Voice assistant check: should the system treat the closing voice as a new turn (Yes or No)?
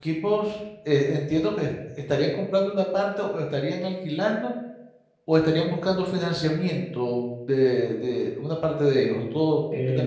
Yes